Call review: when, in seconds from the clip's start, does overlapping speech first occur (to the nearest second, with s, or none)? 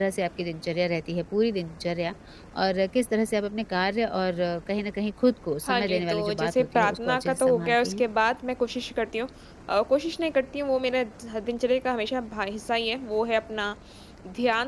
6 s